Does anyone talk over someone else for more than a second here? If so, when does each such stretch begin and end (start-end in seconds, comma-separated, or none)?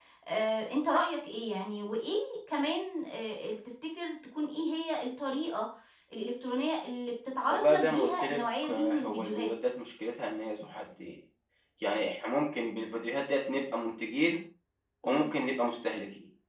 7.5-9.5